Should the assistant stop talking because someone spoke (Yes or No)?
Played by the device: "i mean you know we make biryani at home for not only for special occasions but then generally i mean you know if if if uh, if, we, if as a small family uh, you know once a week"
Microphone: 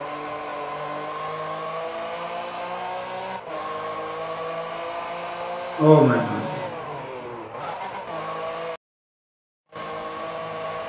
Yes